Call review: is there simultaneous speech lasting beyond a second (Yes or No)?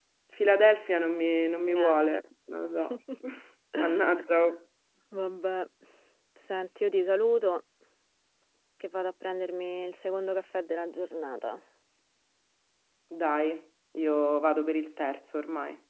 No